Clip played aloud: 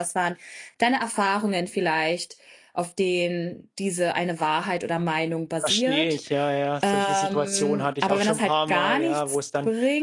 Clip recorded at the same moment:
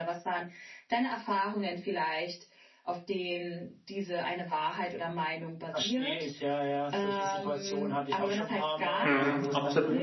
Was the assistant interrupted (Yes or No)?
Yes